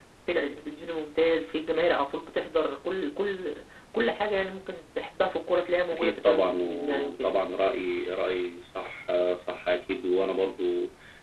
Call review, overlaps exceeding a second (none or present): present